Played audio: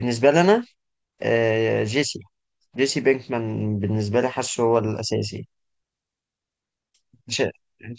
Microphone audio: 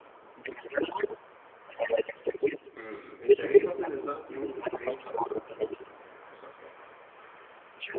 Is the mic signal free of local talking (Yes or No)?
No